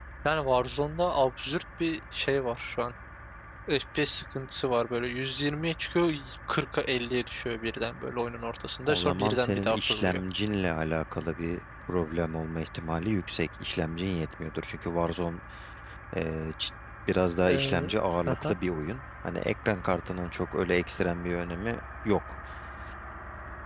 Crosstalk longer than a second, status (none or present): present